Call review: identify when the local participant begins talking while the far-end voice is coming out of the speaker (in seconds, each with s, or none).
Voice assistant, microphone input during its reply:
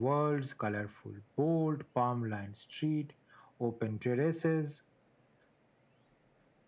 none